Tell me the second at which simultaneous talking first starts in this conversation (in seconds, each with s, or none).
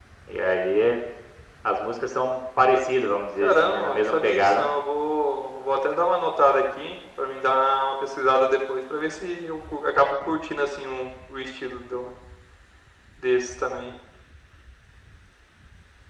3.4 s